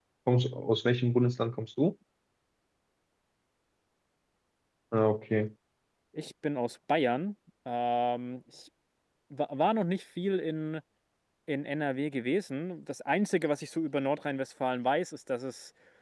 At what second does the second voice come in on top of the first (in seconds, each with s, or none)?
none